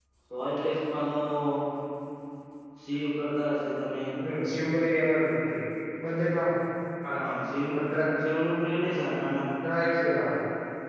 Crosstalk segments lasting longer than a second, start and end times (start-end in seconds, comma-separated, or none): none